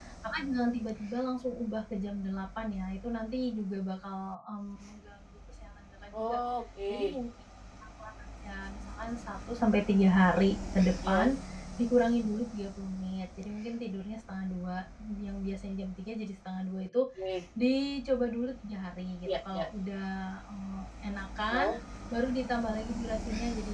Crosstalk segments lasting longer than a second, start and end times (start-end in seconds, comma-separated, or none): none